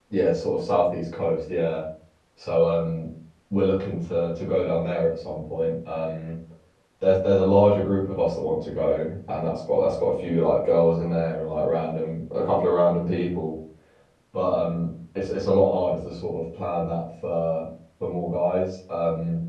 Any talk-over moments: No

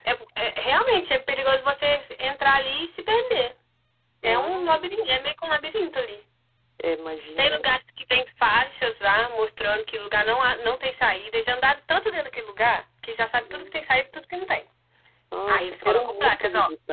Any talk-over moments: Yes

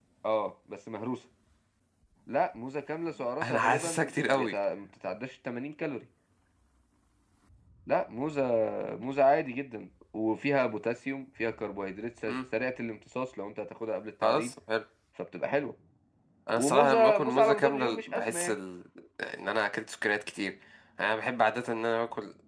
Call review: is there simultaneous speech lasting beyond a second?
Yes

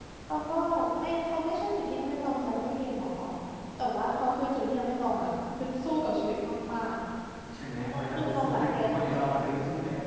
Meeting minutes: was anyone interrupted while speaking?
Yes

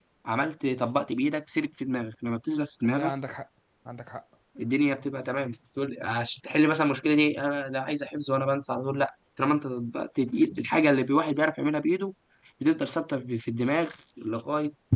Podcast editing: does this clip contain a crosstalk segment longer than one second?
No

